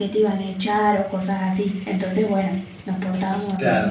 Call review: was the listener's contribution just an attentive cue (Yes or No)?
No